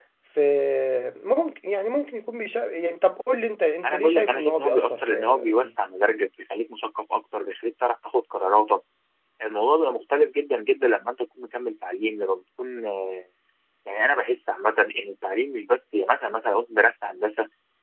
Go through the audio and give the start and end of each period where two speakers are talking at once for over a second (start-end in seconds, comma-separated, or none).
3.8-5.7